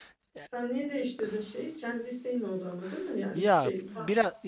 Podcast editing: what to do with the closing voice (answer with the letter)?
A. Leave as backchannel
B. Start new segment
B